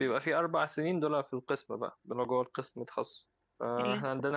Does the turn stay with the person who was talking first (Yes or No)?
Yes